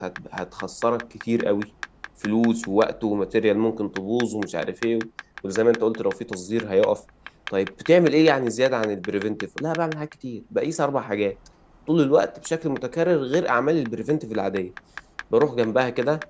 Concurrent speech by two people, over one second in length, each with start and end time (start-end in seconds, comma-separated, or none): none